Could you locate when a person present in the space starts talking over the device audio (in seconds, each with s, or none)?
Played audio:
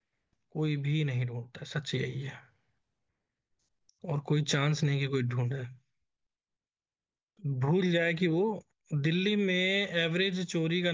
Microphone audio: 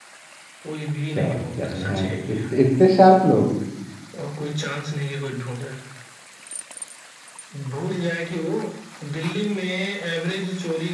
1.1 s